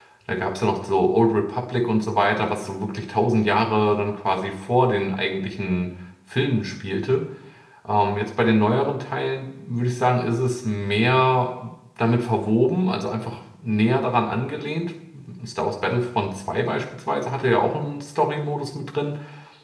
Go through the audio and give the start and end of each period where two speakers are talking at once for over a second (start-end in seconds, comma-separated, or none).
none